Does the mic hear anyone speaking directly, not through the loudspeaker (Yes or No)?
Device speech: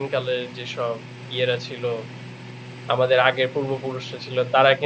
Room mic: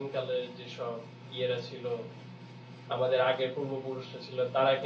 No